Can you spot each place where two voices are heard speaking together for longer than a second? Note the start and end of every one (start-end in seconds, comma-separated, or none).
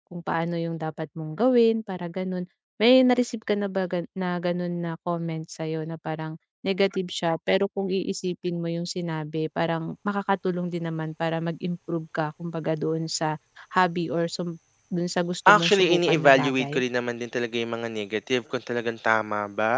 15.6-16.8